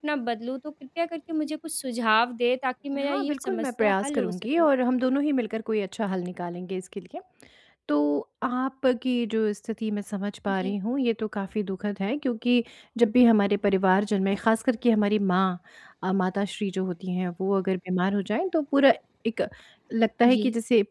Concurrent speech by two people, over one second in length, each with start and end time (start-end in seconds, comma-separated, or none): 3.0-4.7